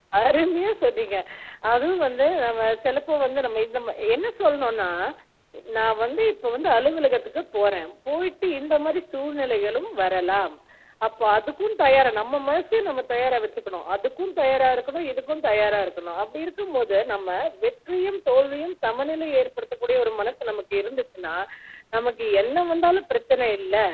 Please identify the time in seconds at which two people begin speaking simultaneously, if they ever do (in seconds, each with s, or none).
none